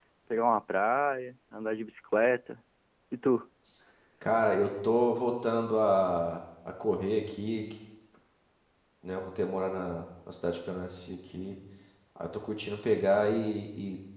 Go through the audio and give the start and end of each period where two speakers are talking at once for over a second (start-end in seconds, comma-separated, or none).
none